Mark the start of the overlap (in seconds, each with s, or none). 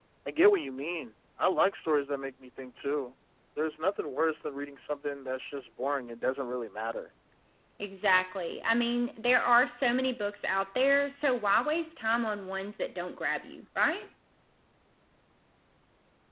none